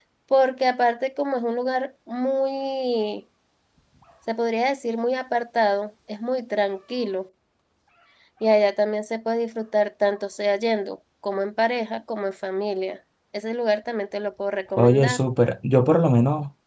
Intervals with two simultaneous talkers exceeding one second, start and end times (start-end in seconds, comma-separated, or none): none